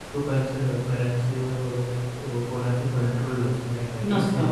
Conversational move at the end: taking over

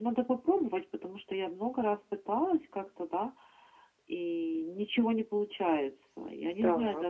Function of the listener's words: listening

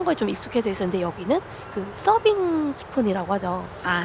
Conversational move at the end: listening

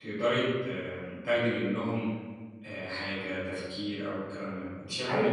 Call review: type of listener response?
listening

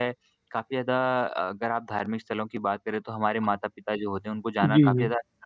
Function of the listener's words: listening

